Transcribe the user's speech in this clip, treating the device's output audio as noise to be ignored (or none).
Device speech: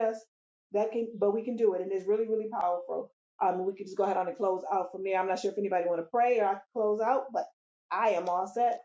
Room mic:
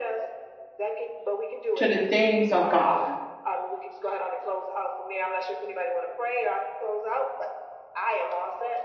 to the things of God.